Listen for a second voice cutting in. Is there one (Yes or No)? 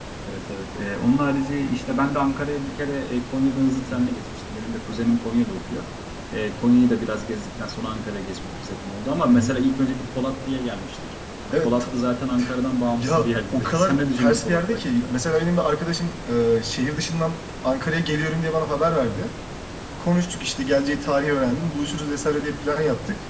Yes